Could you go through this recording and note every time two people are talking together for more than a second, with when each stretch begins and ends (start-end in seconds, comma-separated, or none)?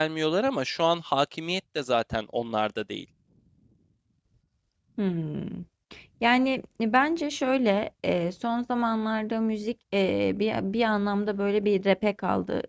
none